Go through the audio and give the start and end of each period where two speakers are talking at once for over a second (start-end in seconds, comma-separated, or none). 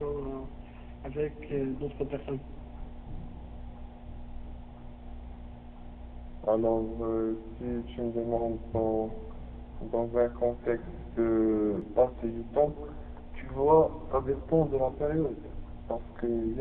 none